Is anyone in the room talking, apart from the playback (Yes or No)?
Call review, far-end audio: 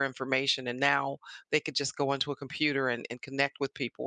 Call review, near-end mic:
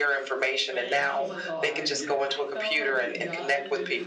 Yes